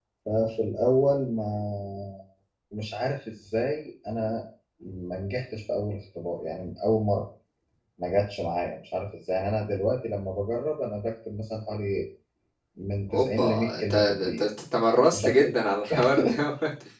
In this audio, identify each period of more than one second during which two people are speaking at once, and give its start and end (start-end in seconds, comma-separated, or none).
13.1-14.5